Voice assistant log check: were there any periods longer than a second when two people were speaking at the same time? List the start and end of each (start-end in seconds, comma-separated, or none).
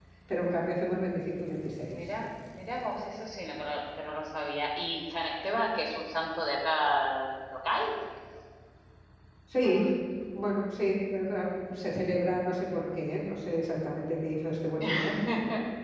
none